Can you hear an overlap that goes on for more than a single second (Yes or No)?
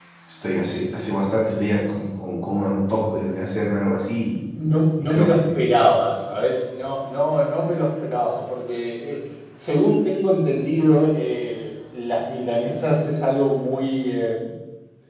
No